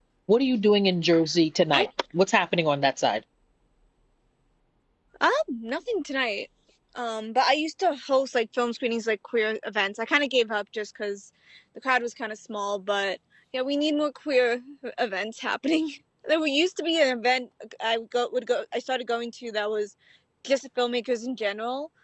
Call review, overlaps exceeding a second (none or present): none